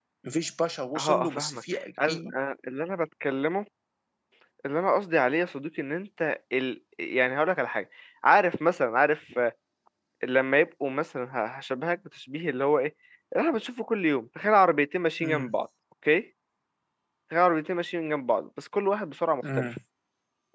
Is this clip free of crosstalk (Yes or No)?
No